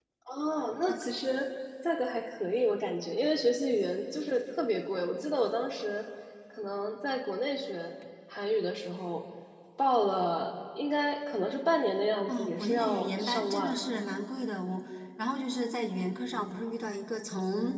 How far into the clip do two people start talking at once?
12.3 s

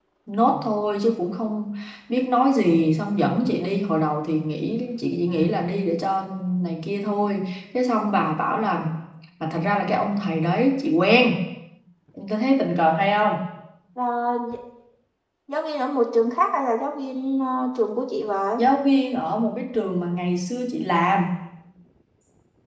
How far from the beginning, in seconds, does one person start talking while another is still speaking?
none

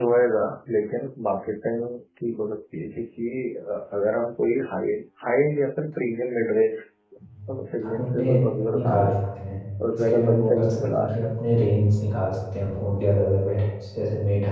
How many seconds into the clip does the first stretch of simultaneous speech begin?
7.8 s

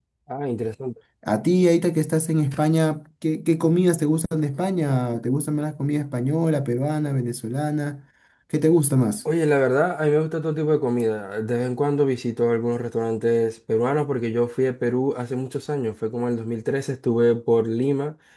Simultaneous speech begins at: none

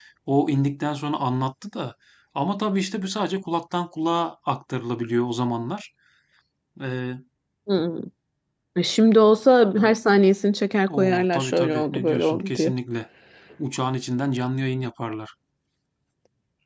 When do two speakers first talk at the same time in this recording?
10.9 s

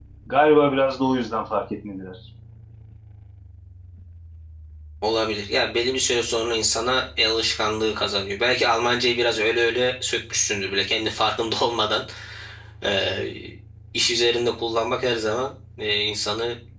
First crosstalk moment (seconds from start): none

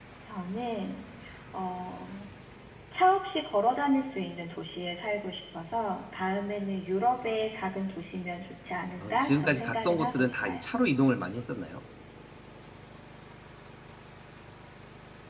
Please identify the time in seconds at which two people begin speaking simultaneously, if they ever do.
9.0 s

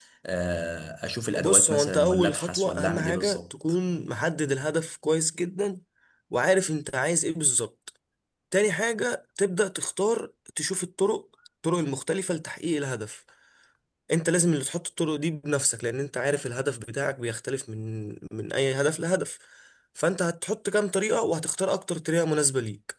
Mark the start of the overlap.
1.3 s

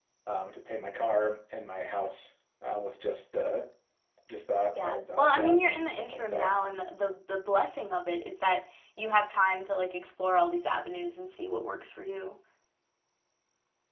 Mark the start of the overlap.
4.8 s

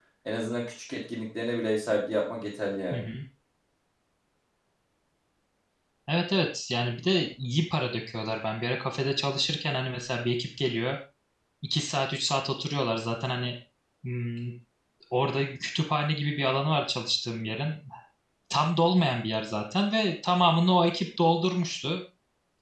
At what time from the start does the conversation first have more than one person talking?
none

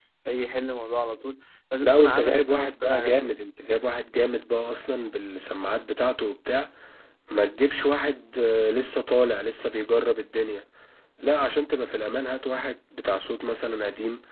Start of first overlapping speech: 1.8 s

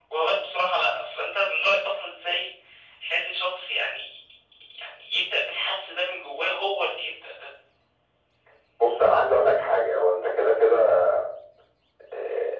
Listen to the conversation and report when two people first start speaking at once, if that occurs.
none

